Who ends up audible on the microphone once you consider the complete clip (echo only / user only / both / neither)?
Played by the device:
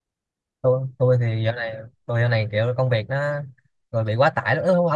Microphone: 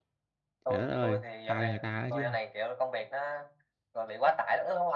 both